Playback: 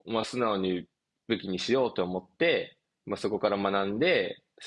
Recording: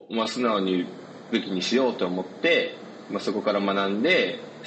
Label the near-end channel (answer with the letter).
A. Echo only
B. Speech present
A